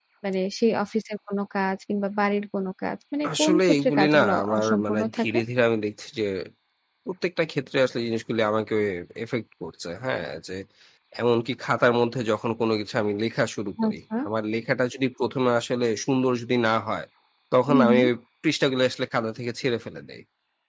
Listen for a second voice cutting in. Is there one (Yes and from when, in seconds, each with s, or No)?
Yes, from 3.4 s